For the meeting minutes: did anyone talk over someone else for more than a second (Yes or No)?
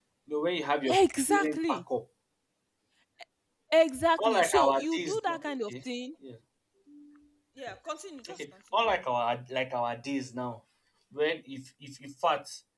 Yes